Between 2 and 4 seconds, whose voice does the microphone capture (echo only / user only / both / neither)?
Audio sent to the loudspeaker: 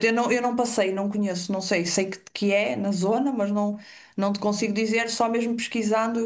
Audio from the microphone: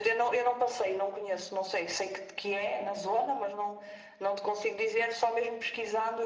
echo only